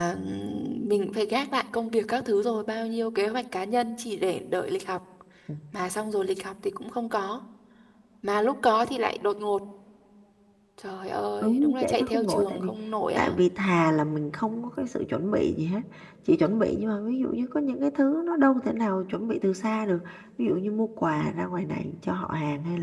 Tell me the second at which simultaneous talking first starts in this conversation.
11 s

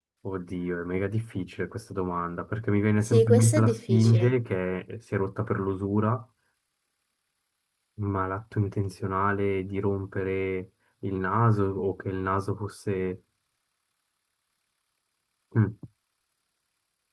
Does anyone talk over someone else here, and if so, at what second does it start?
3 s

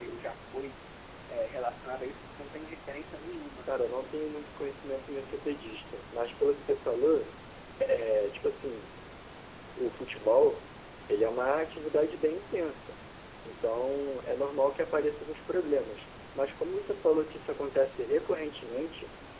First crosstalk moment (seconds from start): none

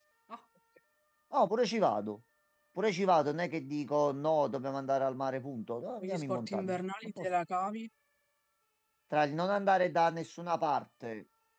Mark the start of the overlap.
6 s

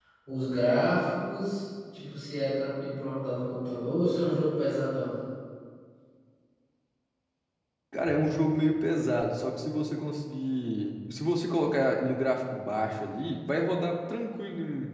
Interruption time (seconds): none

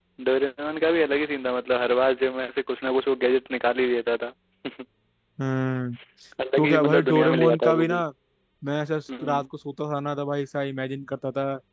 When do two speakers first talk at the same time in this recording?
7 s

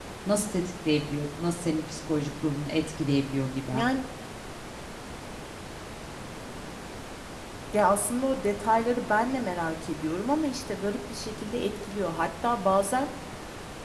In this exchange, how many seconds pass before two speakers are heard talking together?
none

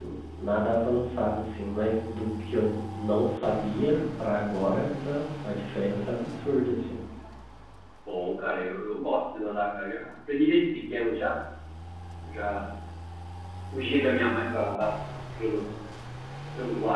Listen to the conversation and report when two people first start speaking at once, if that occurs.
none

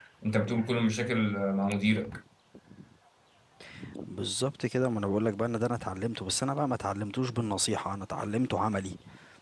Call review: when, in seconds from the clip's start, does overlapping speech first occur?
none

